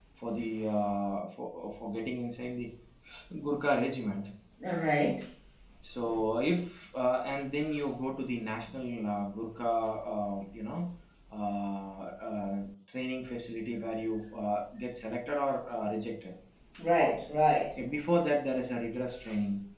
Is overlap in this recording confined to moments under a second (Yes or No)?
Yes